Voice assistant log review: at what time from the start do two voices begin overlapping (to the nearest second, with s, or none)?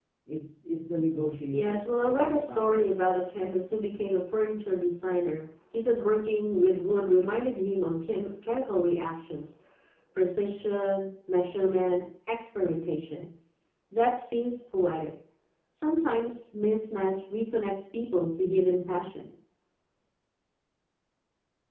2 s